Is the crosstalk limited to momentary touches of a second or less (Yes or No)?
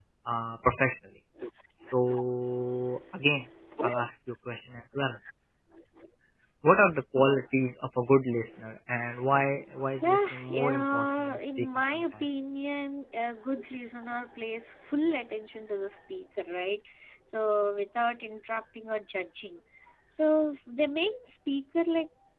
No